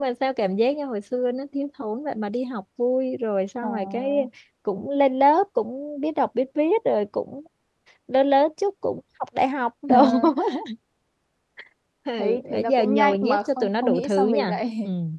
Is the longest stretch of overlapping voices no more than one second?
No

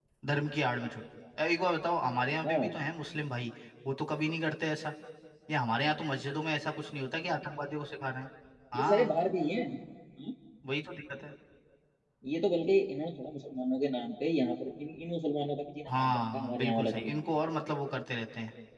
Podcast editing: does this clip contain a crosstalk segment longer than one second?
Yes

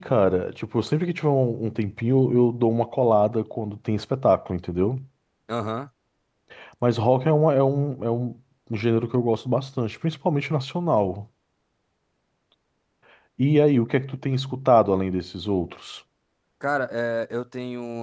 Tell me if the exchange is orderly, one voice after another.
Yes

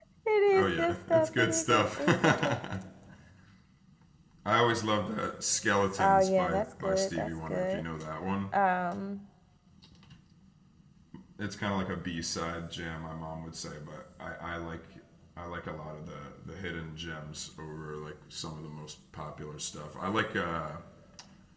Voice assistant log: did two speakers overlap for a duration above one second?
Yes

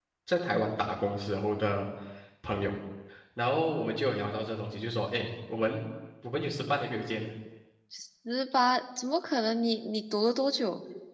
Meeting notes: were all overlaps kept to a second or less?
Yes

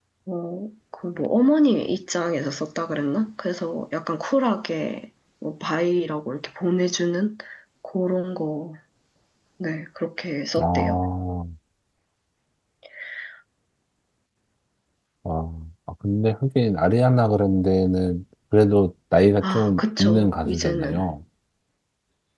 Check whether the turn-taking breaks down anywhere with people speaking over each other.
Yes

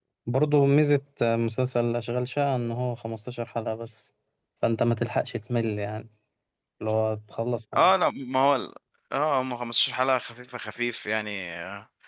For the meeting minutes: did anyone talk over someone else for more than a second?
No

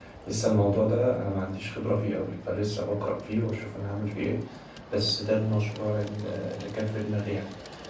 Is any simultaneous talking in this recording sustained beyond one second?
No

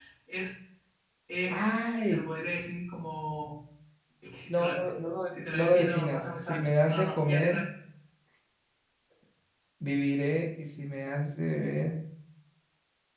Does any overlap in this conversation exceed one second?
Yes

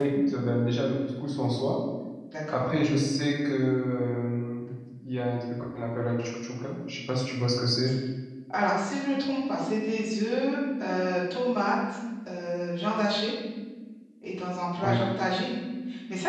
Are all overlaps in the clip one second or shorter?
Yes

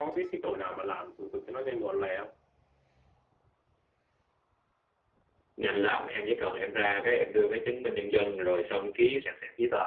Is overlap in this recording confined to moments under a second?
Yes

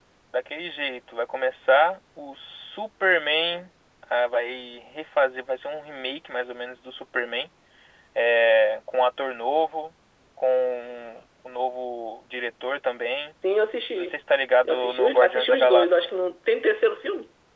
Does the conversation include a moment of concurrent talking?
Yes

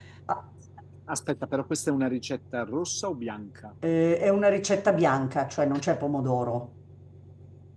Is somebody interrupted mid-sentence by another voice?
No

